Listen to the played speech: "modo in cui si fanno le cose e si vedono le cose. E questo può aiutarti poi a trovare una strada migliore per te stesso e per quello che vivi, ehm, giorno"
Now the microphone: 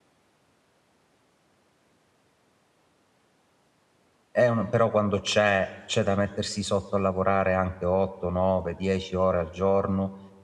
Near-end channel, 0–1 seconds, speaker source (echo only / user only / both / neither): neither